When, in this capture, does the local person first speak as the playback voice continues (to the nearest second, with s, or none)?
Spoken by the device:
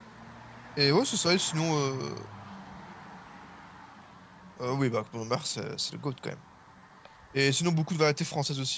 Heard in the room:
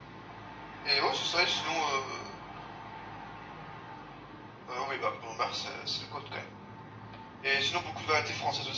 none